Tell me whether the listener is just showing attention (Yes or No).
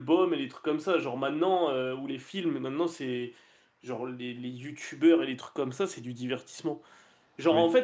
Yes